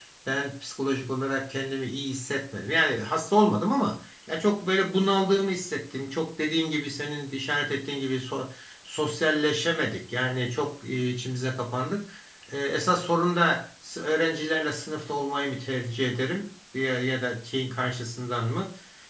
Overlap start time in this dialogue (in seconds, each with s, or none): none